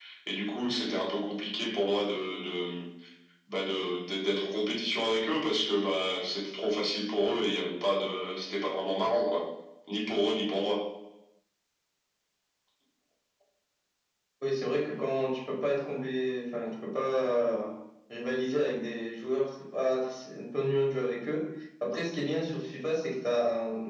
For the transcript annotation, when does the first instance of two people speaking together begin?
none

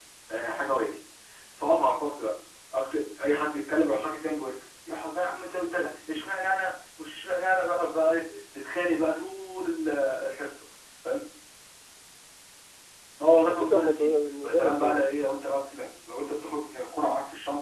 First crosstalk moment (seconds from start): 13.4 s

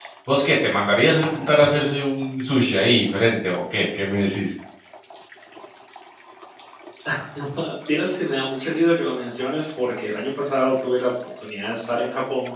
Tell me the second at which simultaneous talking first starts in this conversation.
none

